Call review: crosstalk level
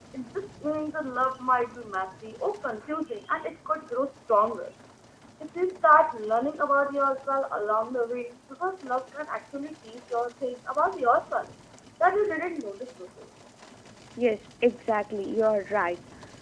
none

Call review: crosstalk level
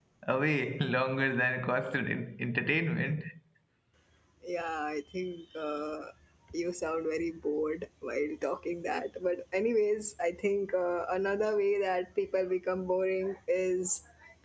none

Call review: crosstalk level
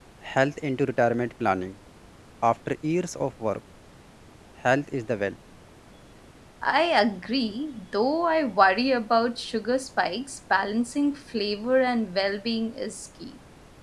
none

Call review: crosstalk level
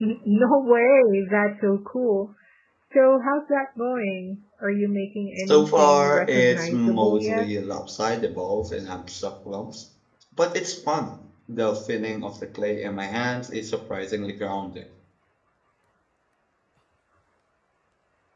present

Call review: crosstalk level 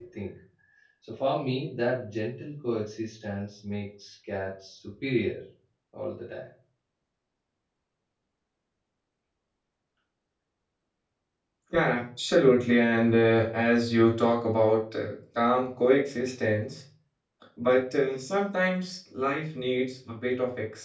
none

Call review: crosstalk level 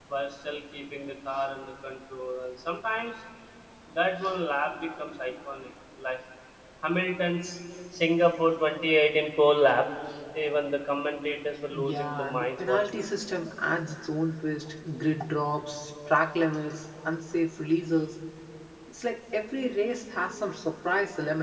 present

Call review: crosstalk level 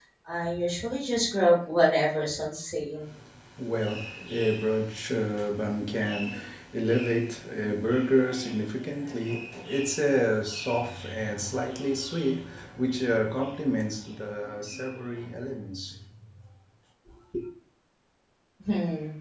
none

